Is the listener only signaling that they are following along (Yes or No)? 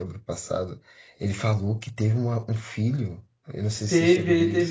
No